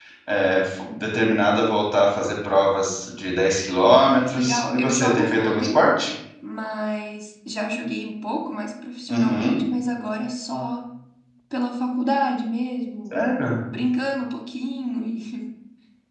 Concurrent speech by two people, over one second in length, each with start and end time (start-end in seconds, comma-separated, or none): 4.0-5.8